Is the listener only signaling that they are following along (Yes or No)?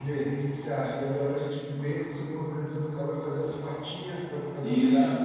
No